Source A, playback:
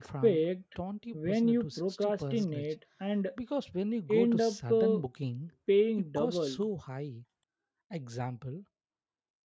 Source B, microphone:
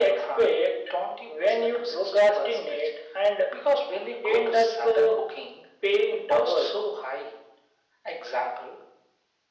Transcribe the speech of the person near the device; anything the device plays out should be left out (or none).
none